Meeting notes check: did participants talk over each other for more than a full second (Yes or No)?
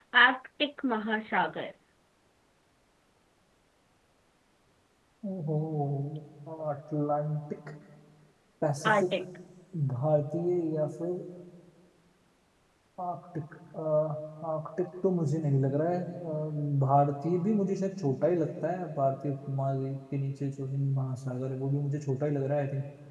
No